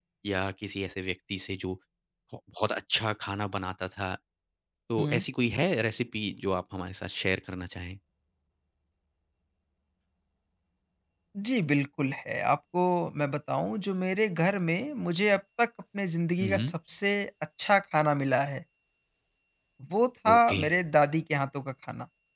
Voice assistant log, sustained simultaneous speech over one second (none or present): none